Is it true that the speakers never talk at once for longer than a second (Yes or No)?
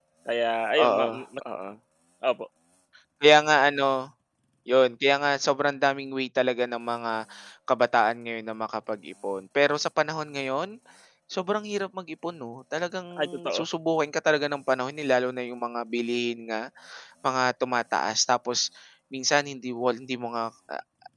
Yes